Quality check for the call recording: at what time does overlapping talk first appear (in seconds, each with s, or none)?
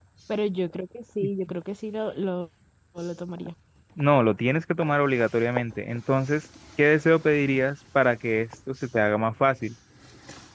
none